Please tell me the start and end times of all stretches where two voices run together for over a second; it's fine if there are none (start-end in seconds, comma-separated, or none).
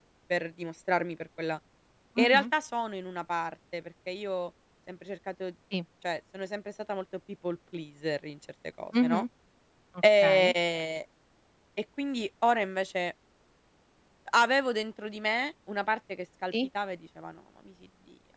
none